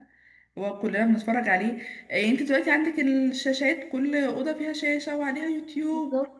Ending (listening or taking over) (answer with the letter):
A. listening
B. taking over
A